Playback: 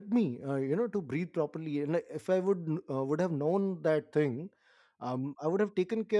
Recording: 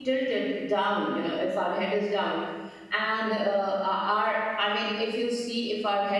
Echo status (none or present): none